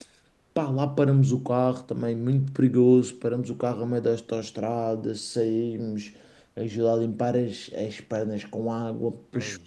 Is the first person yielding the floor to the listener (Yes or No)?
No